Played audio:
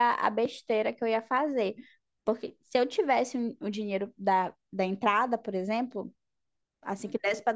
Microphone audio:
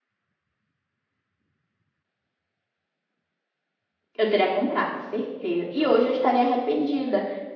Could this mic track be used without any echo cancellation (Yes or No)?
Yes